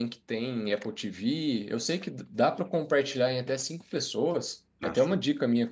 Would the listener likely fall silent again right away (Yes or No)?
Yes